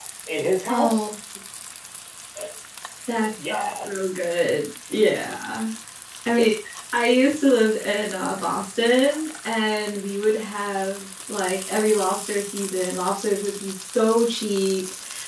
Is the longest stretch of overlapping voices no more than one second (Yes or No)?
Yes